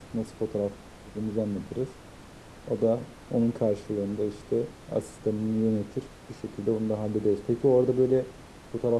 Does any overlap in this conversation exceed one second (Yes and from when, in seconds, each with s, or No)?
No